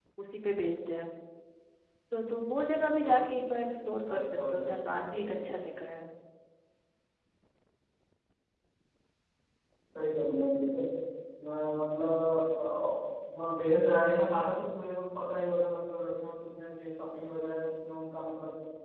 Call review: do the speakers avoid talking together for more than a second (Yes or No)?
No